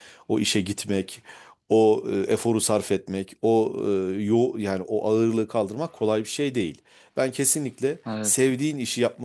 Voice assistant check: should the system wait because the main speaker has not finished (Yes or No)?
Yes